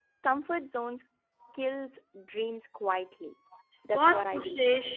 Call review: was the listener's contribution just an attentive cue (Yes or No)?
No